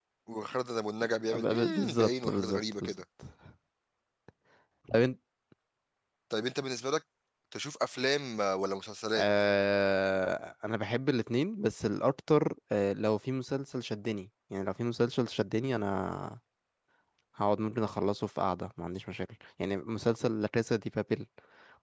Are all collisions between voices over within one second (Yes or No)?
No